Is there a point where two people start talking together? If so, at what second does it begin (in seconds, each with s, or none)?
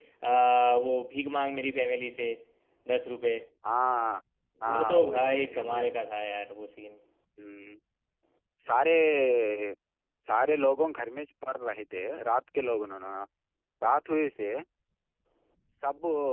4.6 s